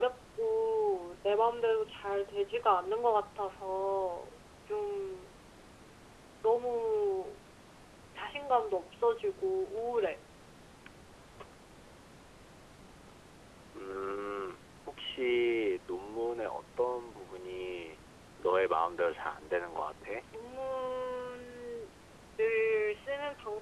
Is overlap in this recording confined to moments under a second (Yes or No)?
Yes